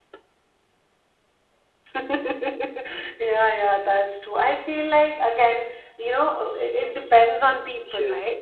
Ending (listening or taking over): taking over